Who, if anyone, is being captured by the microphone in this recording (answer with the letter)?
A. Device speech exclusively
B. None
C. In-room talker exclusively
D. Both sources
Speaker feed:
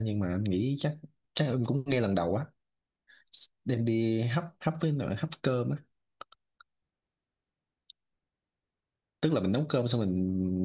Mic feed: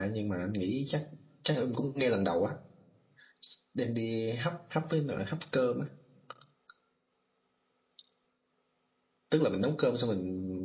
A